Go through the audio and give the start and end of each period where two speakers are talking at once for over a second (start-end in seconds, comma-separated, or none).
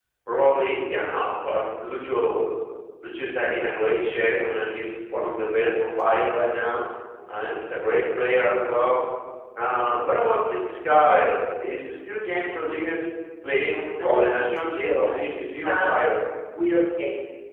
14.0-16.0